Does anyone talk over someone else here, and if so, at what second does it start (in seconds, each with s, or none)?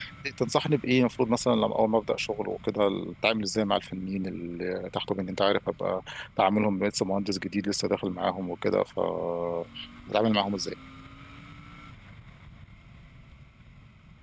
none